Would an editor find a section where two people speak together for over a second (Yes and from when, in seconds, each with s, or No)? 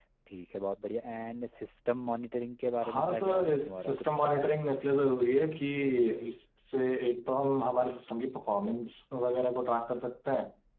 Yes, from 2.8 s